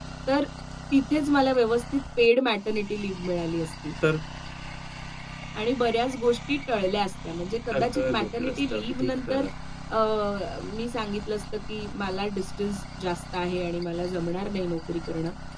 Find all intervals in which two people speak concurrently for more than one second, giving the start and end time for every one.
7.7-9.5

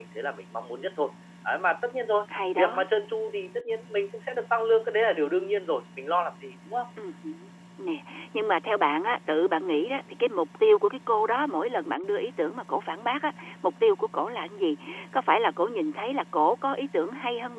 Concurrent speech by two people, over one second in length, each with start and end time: none

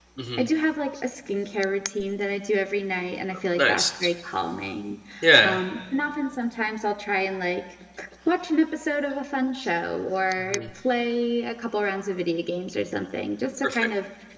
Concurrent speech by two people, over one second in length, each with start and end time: none

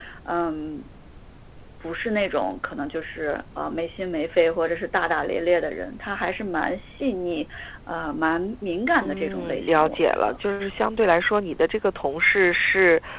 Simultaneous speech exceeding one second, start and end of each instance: 9.0-10.4

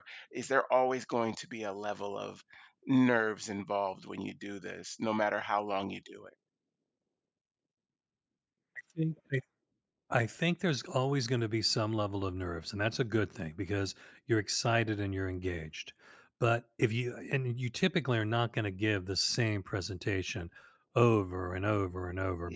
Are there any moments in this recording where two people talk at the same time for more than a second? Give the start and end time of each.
none

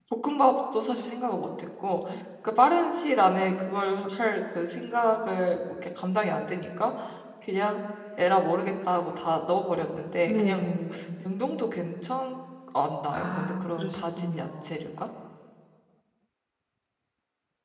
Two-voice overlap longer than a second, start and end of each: 13.1-14.8

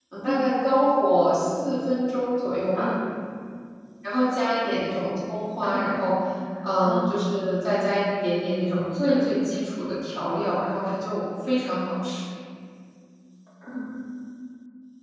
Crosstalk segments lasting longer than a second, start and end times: none

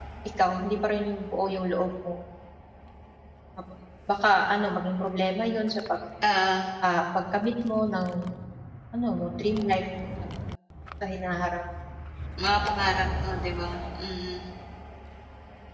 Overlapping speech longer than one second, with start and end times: none

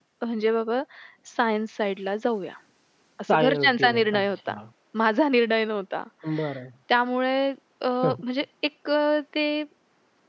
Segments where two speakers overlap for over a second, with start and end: 3.3-4.6

